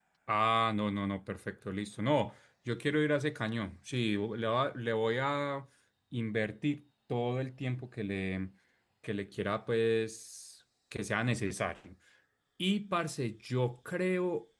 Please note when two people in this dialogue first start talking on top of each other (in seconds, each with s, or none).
none